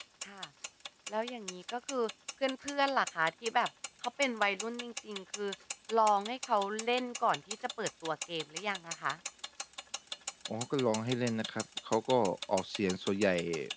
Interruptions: none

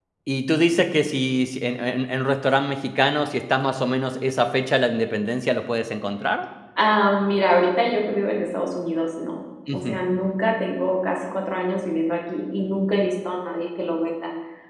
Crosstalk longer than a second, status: none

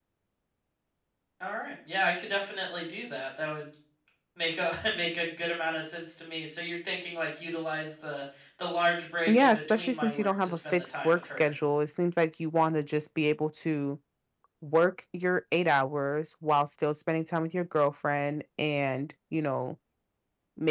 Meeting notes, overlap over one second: present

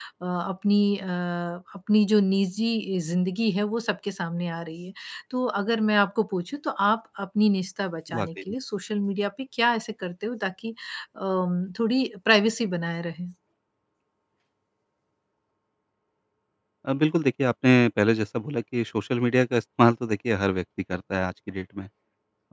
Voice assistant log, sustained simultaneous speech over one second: none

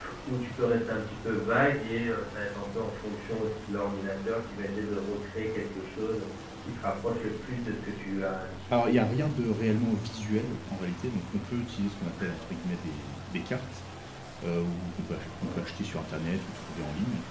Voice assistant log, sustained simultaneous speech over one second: none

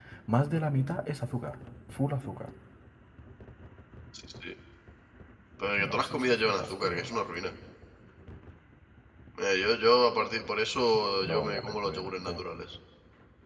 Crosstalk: present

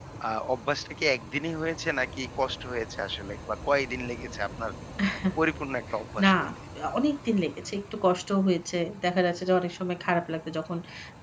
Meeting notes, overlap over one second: none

